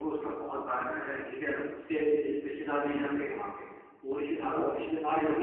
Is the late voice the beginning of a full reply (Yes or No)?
No